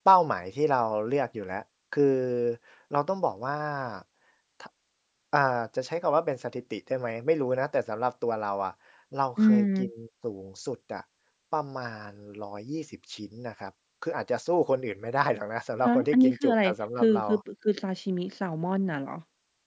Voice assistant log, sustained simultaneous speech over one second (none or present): present